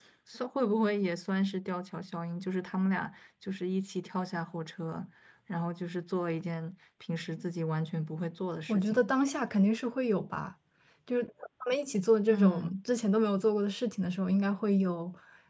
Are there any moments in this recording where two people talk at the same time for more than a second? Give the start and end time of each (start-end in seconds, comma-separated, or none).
none